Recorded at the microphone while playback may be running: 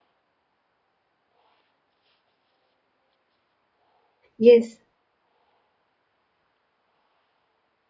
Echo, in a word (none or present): none